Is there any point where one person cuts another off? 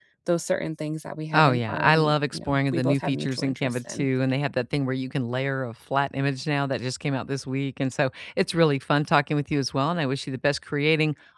Yes, from 1.3 s

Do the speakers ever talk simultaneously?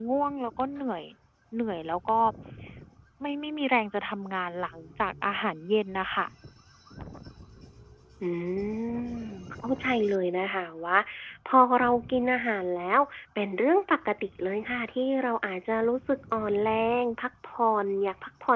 No

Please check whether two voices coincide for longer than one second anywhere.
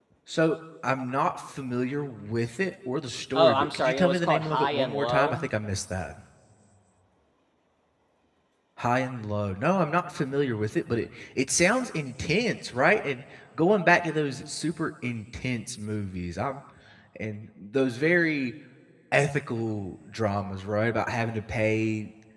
Yes, from 3.4 s

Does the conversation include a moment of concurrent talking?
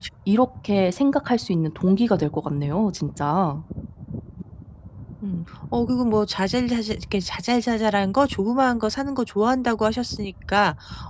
No

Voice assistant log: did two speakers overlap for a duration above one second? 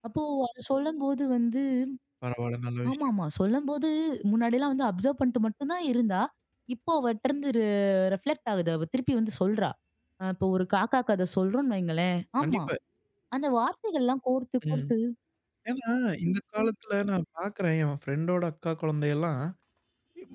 No

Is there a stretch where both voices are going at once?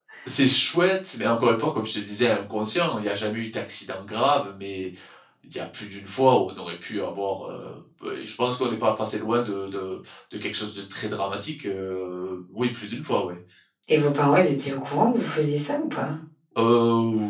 No

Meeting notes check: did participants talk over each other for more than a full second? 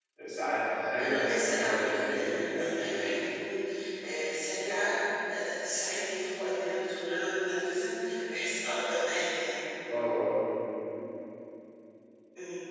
Yes, from 1.0 s

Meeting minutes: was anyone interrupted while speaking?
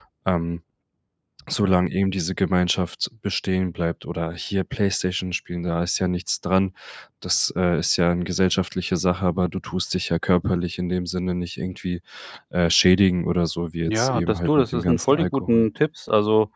Yes, from 13.9 s

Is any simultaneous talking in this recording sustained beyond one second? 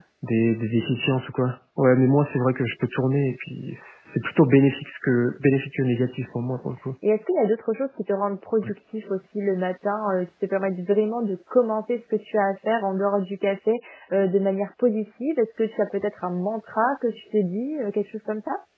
No

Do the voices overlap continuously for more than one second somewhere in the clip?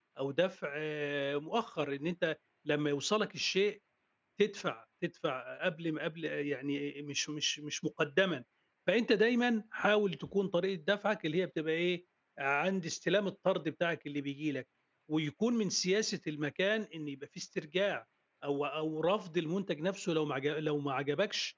No

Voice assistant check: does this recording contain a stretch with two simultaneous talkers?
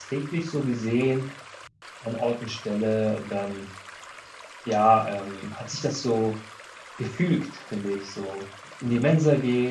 No

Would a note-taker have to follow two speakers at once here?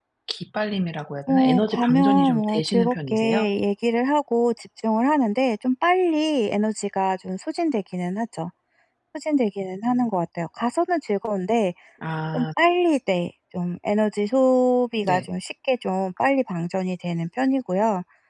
Yes, from 1.3 s

